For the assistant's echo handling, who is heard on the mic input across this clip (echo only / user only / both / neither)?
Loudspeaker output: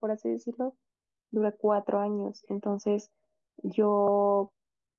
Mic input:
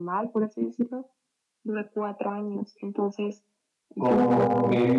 both